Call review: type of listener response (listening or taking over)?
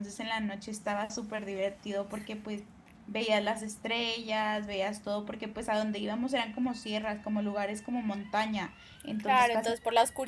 taking over